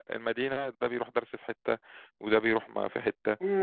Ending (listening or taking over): taking over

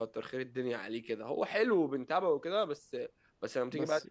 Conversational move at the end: listening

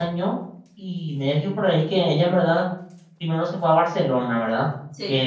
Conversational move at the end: listening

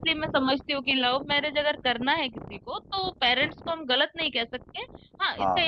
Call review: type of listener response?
listening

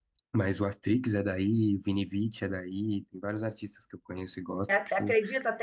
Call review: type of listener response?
taking over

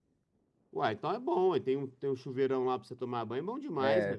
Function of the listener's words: taking over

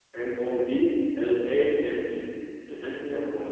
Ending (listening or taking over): listening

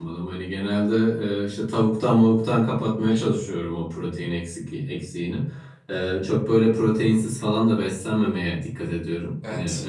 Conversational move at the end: listening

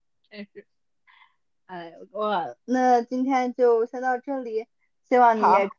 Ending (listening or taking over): listening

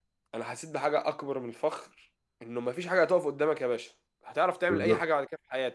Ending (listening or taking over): listening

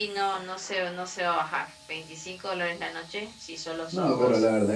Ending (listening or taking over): taking over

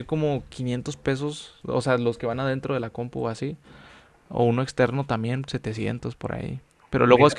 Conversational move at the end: listening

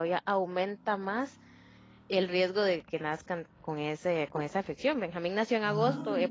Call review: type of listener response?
listening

